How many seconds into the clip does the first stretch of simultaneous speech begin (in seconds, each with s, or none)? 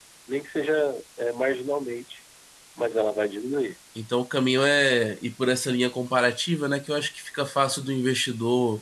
none